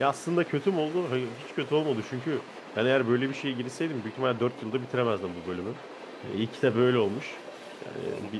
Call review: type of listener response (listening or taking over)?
listening